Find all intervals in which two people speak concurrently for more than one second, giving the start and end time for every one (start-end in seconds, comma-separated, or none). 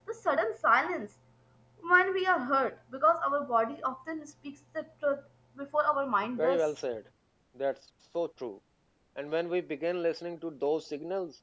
none